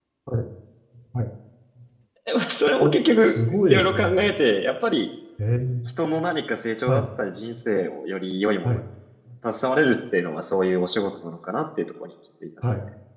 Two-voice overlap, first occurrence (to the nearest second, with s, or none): 3 s